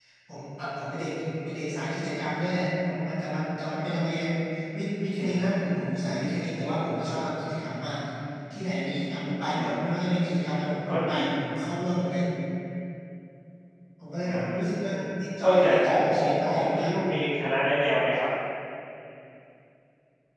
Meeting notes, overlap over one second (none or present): present